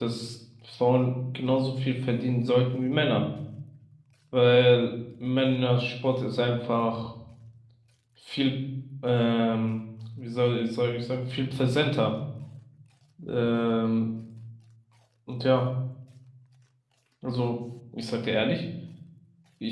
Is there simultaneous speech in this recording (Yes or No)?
No